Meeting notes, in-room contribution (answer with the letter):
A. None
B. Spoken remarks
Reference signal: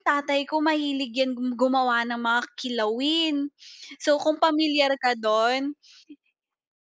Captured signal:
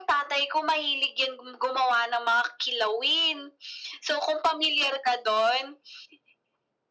A